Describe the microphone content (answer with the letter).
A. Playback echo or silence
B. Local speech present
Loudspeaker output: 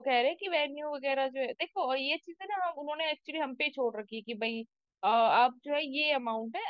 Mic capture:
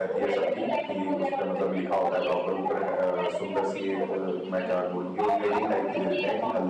B